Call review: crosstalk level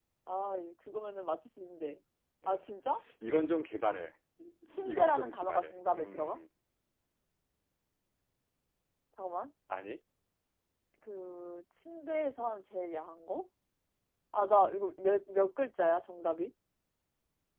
present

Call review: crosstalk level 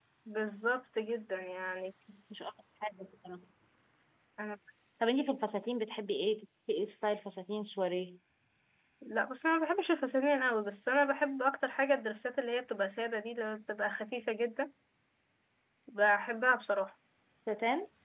none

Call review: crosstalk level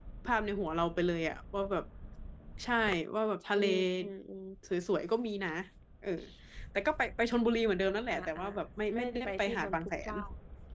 present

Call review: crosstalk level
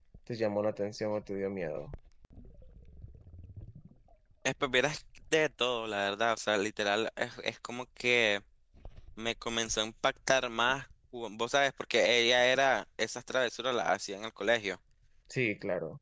none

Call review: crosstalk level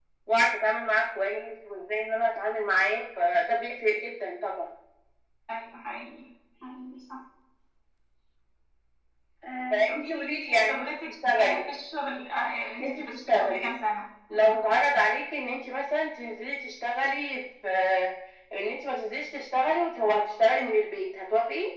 present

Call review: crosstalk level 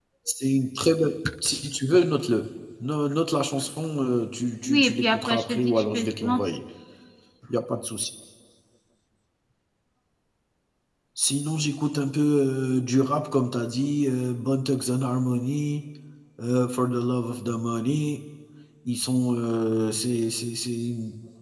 present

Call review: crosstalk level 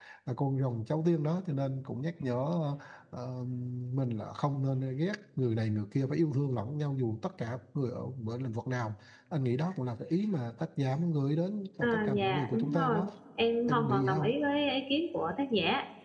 present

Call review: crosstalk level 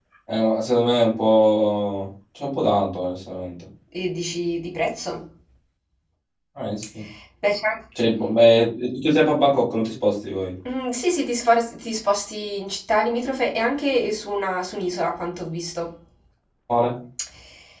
none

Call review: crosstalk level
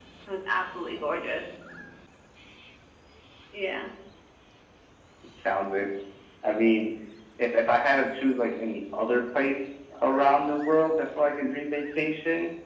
none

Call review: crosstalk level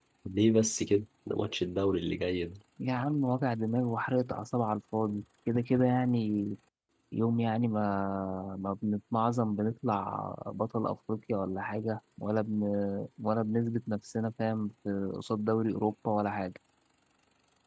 none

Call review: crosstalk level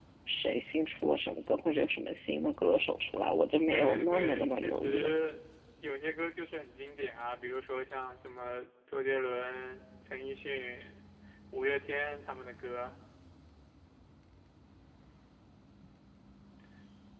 present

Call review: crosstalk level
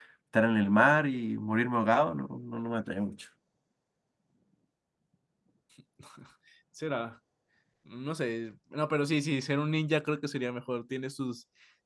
none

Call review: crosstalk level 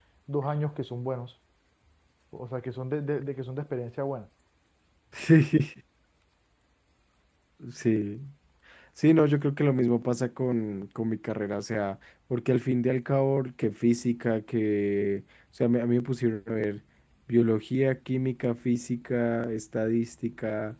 none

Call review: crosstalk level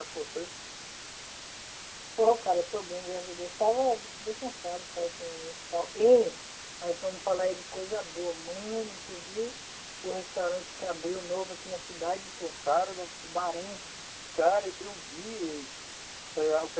none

